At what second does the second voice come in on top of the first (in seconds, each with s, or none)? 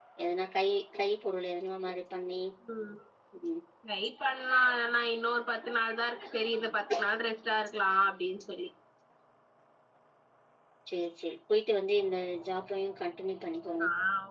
none